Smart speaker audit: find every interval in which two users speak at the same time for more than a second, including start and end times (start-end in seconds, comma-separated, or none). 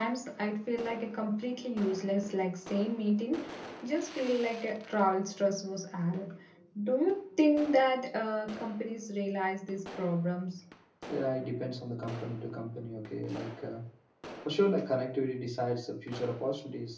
none